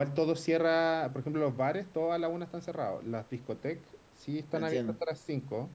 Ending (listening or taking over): listening